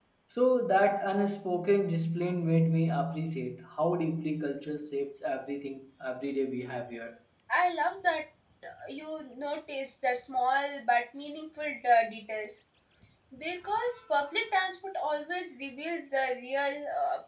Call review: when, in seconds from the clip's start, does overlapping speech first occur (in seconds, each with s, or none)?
none